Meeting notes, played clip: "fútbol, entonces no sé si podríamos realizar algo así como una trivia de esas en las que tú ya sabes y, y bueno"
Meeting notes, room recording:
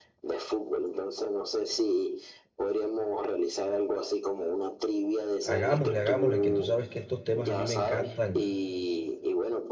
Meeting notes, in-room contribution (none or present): present